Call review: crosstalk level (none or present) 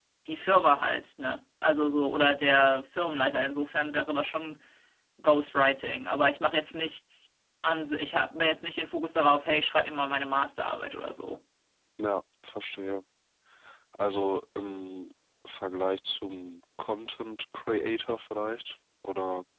none